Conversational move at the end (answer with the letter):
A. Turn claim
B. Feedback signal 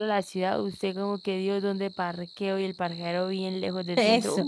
A